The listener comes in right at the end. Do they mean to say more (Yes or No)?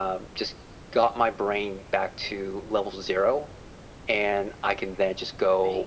No